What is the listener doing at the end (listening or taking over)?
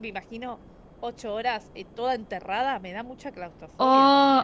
taking over